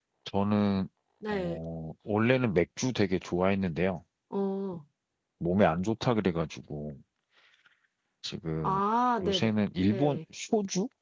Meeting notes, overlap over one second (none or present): none